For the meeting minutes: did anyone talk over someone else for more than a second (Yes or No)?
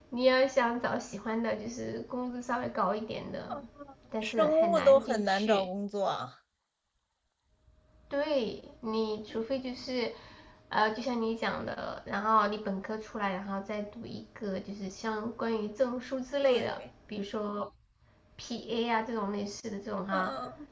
Yes